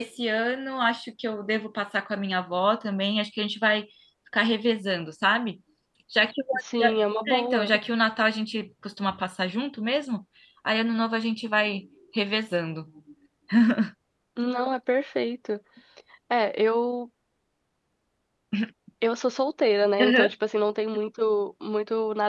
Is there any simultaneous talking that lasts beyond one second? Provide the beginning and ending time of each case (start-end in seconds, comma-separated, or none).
none